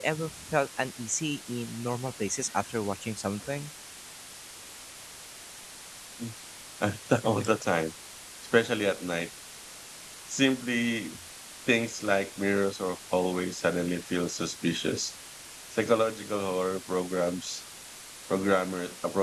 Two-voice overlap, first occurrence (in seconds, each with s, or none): none